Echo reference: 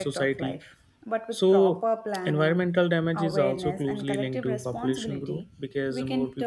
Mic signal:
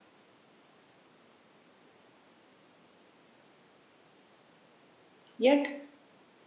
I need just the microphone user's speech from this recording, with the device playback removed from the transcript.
Yet,

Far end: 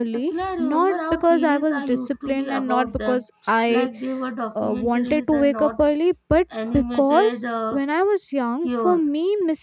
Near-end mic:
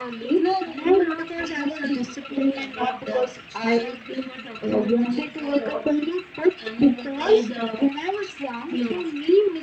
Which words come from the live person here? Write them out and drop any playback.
none

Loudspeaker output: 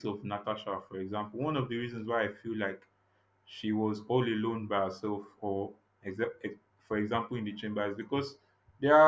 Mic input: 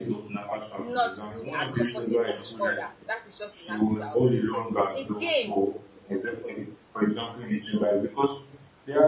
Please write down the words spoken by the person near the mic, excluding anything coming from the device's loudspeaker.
not good at supporting each other. That is just the language I'll use there. Again,

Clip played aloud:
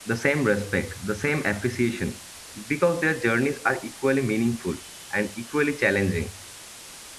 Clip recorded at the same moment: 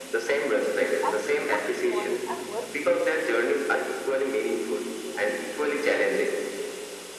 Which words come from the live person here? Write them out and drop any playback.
as equally important and worthy.

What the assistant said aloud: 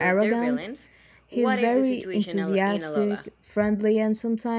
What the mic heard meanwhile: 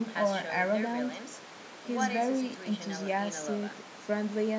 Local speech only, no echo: none

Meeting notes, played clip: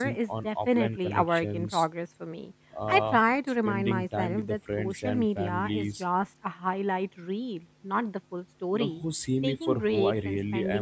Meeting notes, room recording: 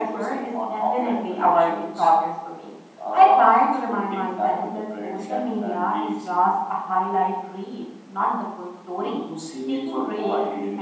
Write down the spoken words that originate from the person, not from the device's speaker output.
none

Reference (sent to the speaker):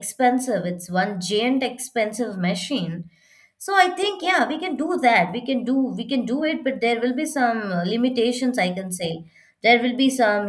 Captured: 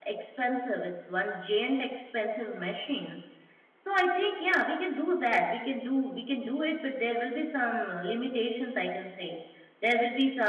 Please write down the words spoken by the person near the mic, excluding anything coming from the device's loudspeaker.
none

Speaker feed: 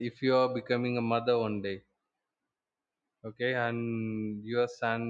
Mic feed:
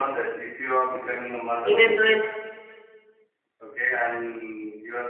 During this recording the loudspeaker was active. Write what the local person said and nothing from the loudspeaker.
even though if

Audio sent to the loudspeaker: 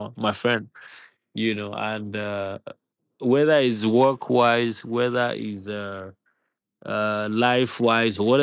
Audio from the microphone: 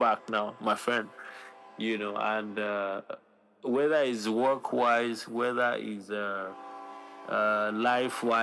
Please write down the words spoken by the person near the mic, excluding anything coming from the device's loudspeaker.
none

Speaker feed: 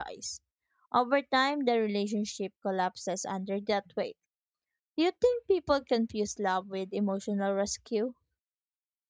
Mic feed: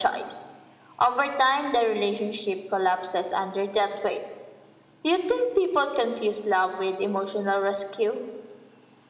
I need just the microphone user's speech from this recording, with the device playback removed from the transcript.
none

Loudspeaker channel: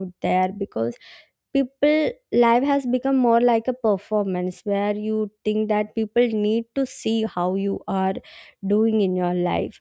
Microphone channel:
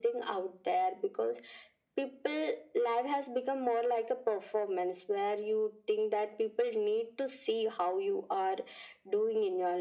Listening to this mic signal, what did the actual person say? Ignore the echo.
none

